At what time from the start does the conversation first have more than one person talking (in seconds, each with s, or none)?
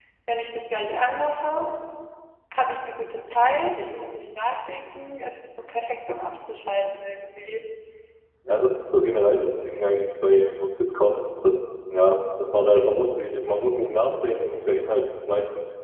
none